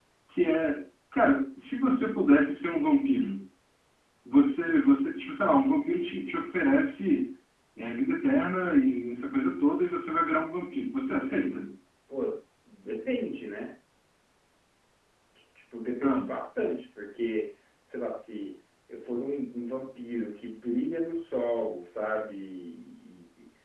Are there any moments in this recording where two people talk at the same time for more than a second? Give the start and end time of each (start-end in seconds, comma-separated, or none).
none